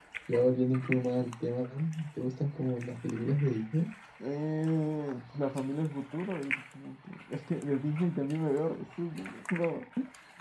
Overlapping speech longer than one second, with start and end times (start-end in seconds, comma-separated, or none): none